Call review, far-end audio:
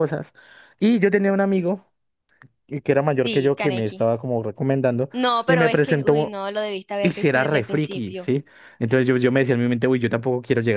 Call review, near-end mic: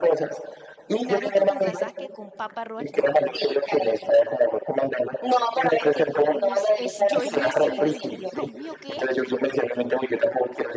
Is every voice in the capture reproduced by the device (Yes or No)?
No